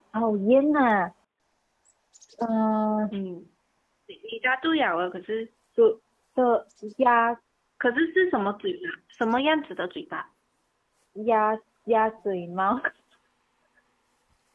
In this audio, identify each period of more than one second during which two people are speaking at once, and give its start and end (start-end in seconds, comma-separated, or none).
none